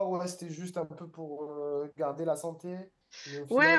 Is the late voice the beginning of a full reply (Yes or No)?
Yes